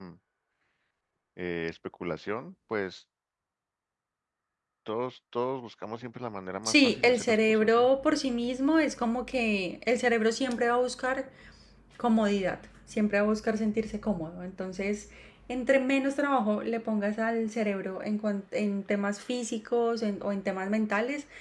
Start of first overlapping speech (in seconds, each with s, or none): 6.7 s